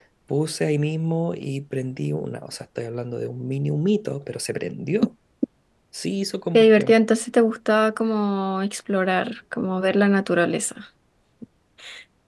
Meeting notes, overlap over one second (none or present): none